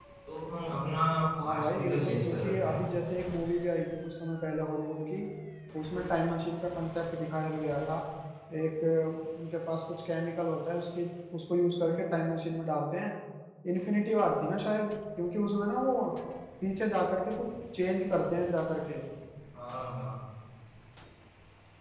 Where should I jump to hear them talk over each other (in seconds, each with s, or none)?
1.4 s